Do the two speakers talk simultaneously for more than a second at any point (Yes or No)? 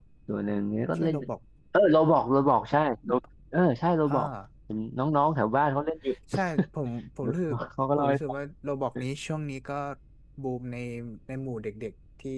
No